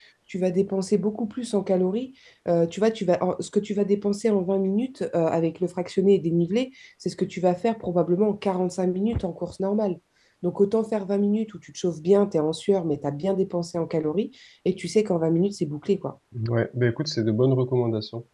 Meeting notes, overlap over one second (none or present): none